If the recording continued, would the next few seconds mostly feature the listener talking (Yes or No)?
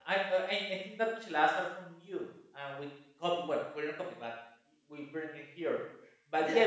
Yes